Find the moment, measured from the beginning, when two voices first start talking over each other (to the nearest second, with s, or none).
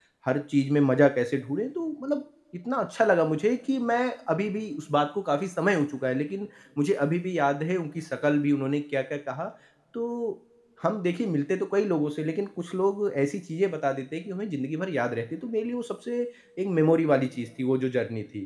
none